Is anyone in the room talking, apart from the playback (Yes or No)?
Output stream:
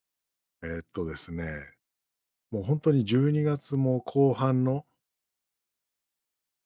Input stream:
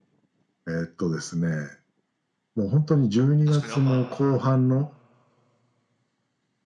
Yes